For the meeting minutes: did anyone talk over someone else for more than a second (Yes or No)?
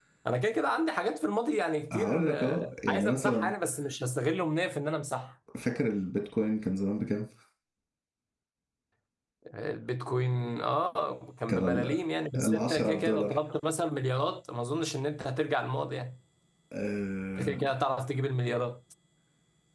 Yes